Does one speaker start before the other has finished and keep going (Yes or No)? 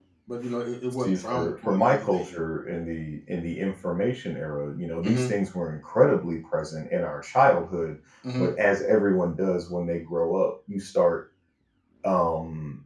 Yes